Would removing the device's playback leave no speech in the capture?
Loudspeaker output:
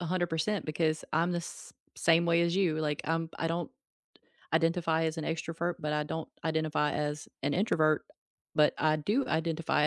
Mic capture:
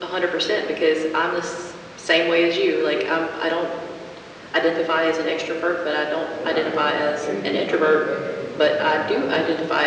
No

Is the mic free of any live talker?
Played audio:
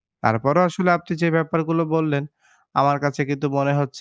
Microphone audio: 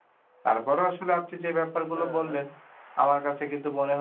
No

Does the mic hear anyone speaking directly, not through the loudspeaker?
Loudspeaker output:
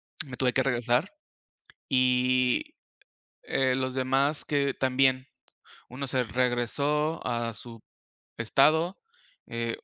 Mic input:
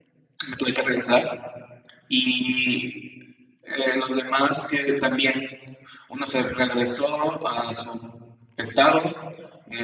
No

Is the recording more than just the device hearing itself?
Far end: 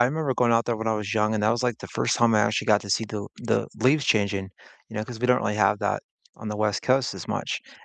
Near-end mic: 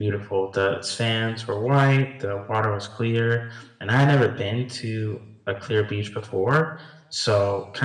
Yes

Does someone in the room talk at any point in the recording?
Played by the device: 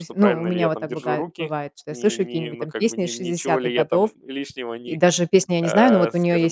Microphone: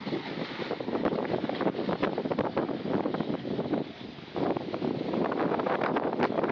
No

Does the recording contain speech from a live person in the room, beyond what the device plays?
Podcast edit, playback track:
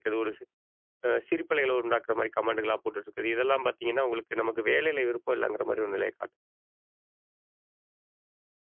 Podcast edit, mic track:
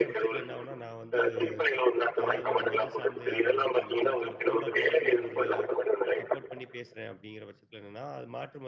Yes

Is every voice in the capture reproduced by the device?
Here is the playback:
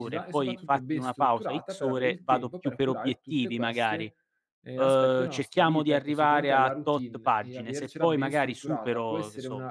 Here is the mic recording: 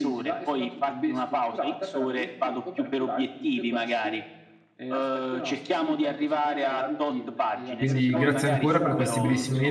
No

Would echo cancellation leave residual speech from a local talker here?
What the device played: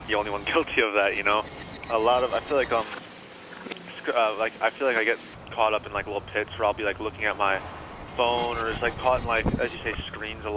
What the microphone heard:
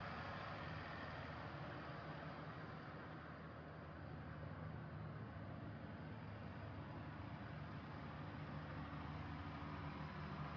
No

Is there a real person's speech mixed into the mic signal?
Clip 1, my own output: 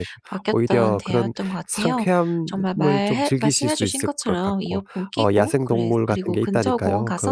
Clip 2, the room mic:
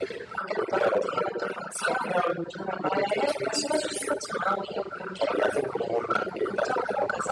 No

